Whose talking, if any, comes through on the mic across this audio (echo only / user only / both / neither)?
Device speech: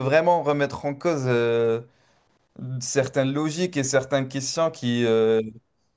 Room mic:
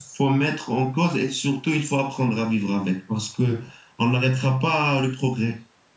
user only